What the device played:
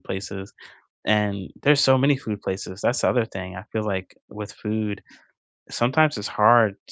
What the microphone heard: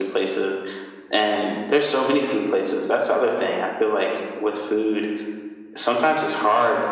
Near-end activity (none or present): none